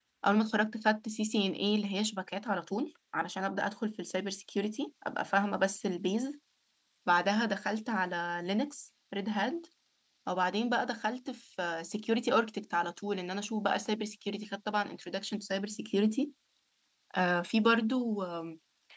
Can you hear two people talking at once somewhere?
No

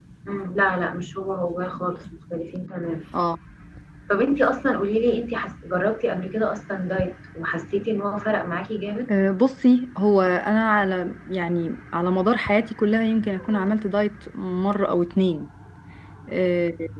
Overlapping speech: No

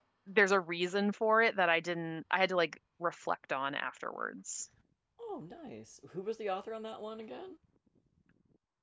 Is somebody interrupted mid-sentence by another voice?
No

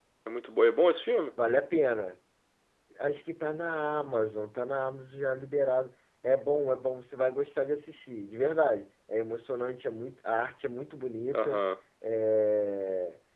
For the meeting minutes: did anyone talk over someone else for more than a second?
No

